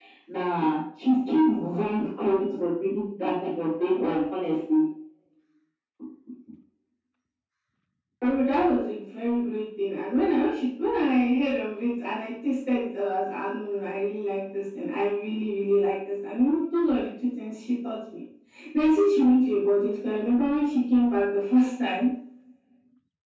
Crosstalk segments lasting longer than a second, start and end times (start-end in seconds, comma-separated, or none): none